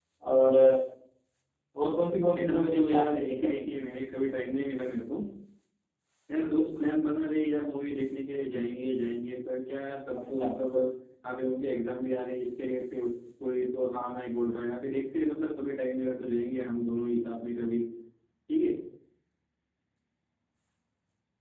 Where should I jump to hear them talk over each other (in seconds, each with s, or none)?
2.4 s